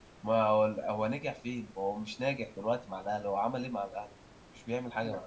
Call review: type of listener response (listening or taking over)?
taking over